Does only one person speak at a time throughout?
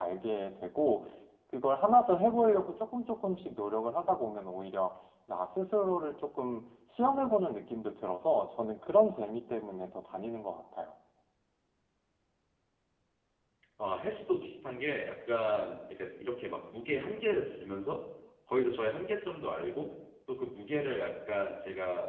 Yes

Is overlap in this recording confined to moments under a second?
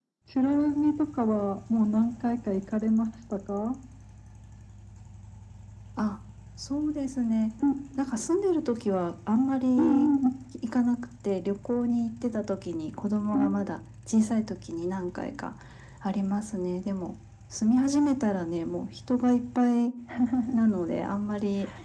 Yes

